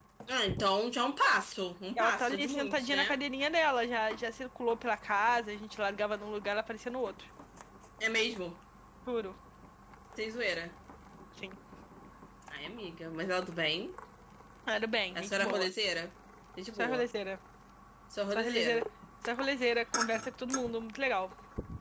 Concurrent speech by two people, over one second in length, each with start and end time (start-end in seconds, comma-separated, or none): 2.0-3.2